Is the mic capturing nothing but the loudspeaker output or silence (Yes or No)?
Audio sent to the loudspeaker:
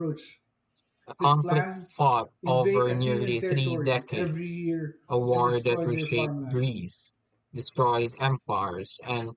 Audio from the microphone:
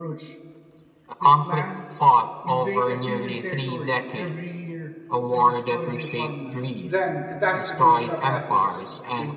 No